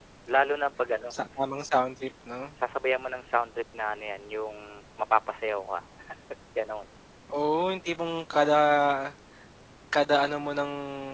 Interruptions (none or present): none